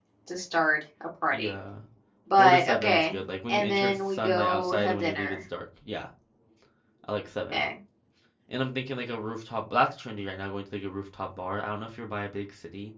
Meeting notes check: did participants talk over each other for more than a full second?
Yes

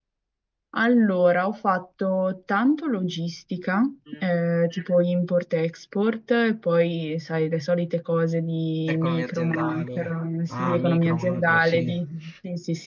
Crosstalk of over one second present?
Yes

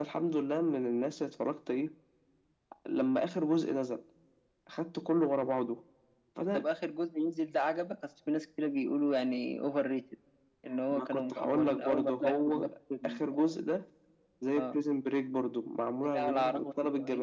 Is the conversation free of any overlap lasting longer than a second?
No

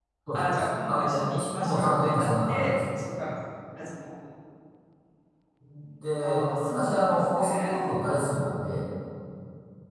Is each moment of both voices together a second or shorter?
No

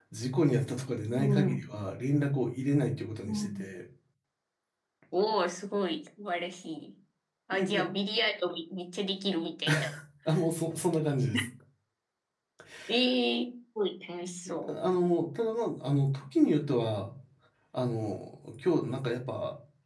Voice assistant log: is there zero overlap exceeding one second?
Yes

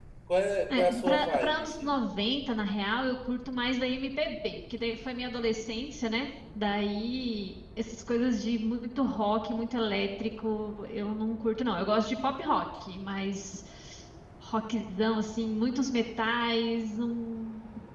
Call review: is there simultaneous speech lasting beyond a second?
Yes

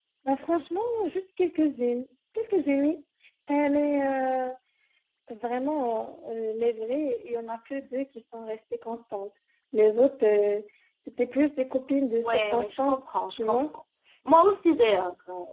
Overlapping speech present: Yes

